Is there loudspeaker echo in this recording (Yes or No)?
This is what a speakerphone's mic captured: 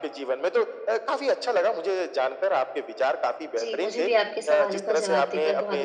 Yes